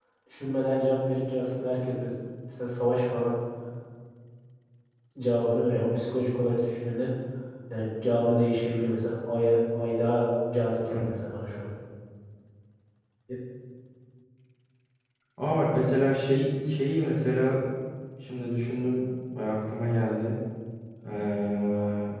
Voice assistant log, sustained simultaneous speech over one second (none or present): none